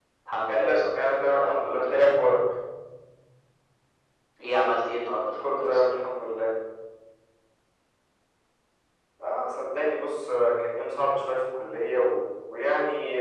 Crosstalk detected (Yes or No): Yes